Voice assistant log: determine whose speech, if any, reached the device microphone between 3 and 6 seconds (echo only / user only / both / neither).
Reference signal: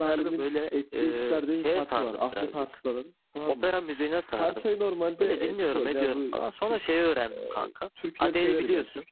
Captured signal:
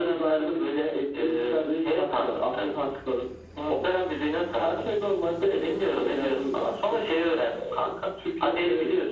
echo only